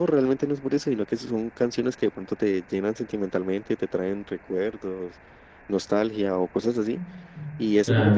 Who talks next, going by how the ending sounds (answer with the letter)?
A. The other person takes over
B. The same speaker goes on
B